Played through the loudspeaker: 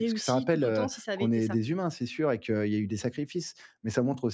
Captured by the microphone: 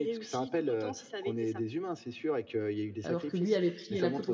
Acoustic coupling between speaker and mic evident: Yes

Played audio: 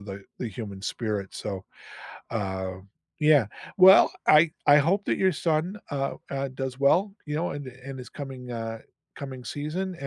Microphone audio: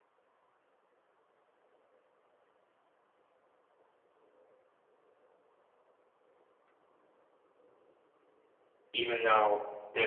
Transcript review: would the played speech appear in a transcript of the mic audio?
No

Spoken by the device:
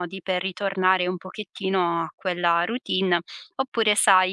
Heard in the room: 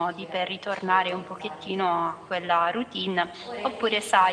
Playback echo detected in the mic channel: Yes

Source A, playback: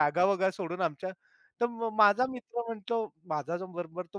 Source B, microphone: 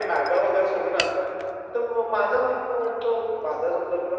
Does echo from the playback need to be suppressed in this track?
Yes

